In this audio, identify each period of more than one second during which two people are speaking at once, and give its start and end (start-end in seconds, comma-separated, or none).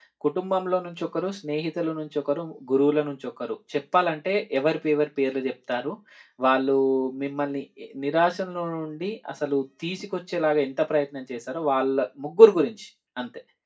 none